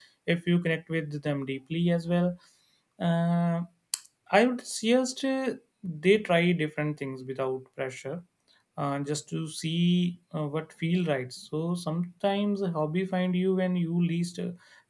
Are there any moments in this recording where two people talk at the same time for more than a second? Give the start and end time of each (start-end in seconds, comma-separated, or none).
none